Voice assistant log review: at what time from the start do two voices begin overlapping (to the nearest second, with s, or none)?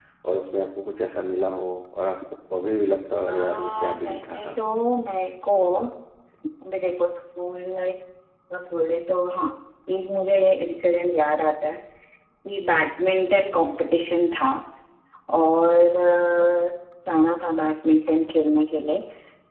3 s